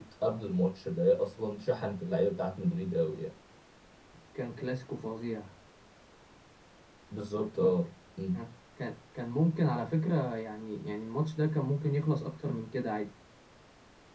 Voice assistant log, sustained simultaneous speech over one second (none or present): none